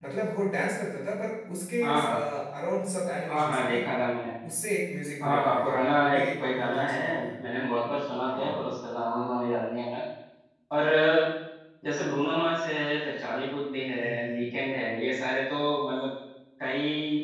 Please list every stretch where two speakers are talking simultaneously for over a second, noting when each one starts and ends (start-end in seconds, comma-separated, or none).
5.2-7.0